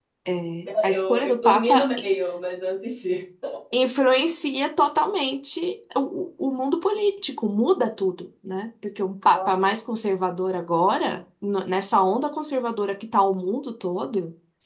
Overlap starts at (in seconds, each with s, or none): 0.7 s